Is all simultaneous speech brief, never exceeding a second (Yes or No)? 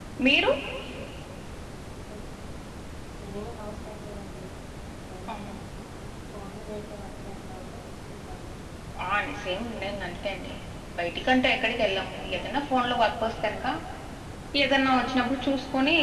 Yes